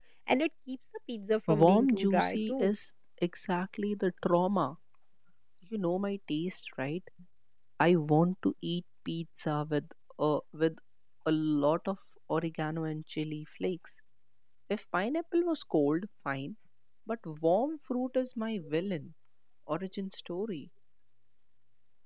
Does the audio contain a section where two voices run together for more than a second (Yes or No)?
Yes